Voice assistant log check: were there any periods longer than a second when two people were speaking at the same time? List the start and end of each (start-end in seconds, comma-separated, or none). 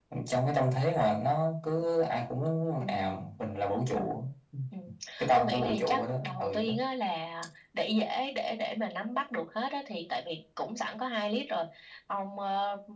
5.3-6.7